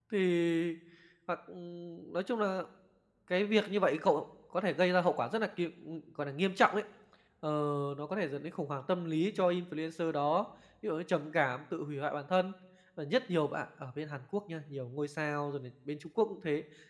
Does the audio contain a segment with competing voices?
No

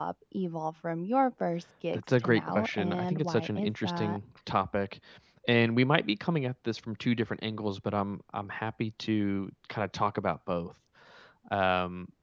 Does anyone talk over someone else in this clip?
Yes, from 1.9 s

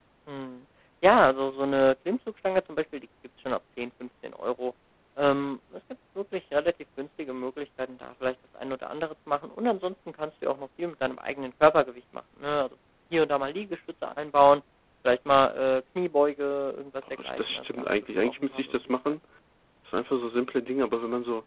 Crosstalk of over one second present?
Yes, from 17.0 s

